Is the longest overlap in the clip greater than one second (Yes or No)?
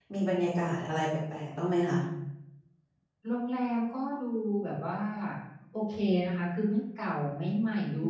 No